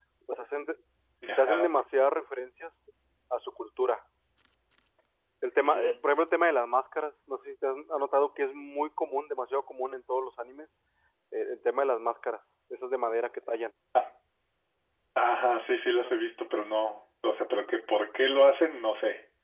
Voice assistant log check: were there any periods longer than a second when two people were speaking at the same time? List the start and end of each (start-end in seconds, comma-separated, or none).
none